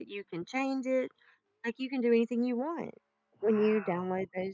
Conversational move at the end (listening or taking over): listening